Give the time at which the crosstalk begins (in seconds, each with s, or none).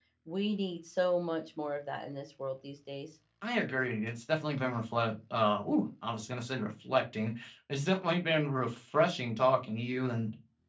none